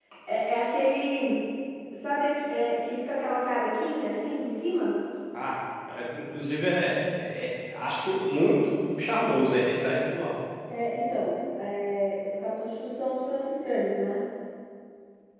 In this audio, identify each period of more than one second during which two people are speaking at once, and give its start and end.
none

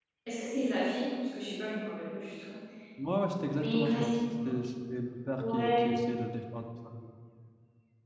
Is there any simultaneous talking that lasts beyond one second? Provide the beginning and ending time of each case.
none

